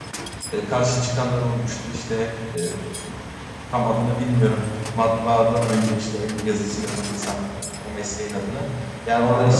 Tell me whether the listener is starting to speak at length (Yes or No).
No